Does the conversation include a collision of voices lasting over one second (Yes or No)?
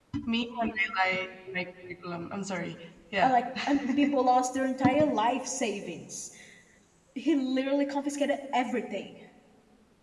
No